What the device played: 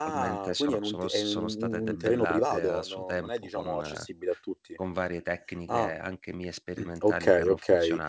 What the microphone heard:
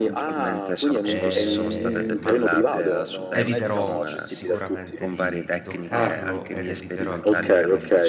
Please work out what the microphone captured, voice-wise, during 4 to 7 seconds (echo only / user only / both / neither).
both